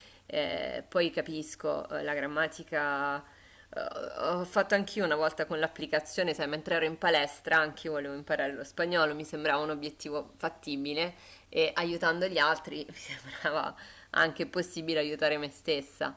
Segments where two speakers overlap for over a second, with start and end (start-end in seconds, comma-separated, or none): none